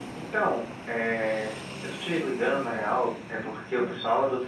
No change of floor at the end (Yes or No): Yes